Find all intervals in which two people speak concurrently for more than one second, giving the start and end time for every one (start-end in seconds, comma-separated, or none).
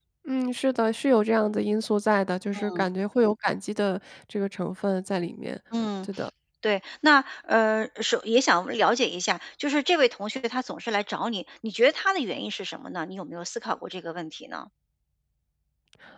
none